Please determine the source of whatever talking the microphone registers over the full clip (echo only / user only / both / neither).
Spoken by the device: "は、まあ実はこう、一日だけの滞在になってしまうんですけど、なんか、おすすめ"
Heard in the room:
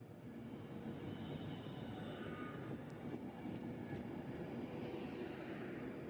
neither